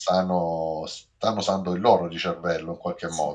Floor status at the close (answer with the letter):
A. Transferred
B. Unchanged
A